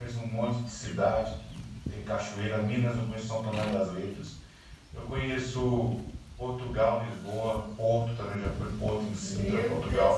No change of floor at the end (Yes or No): No